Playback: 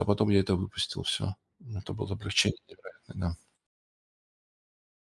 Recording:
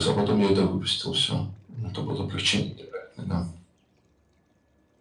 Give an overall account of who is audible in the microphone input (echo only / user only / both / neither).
echo only